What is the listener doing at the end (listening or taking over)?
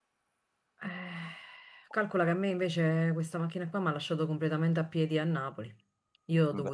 listening